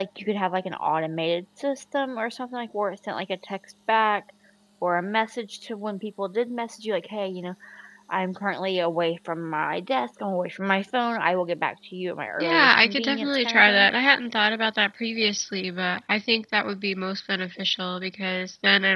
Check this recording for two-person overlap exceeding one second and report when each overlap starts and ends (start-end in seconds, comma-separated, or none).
12.4-13.9